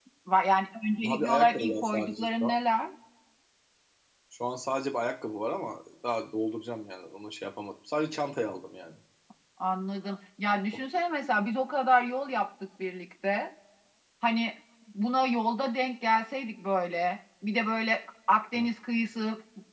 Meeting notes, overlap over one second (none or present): present